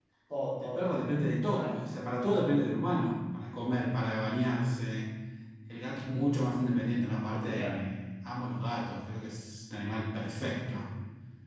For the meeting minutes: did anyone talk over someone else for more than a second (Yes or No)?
No